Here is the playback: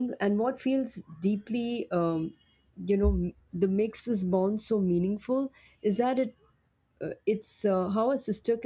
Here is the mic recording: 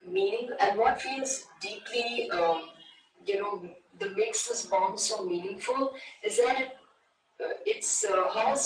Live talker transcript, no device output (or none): none